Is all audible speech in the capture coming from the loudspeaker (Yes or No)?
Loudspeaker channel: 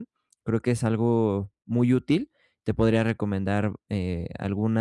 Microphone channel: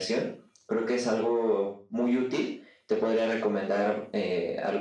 Yes